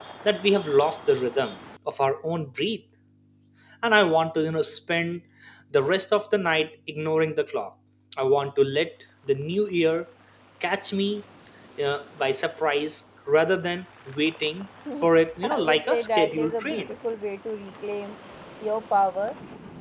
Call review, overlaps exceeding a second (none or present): present